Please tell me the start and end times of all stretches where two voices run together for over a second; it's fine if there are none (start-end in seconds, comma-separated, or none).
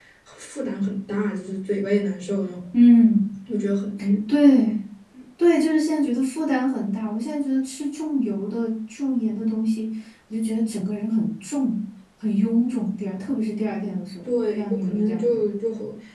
14.3-15.6